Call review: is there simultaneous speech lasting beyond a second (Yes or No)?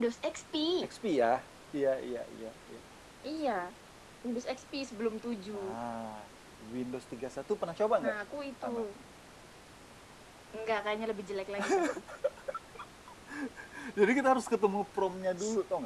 No